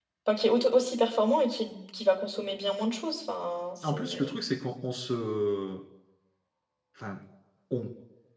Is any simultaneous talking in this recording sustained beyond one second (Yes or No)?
No